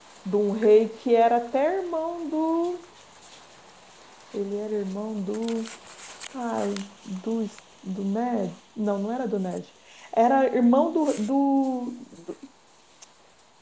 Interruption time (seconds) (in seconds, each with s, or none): none